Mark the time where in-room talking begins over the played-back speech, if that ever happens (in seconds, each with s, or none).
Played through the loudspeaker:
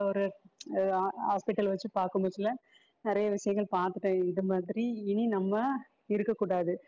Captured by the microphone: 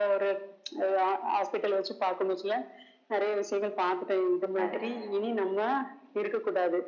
4.6 s